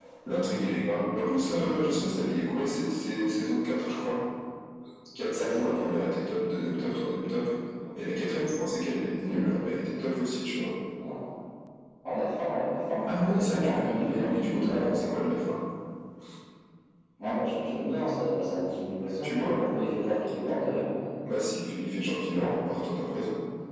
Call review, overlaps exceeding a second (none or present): present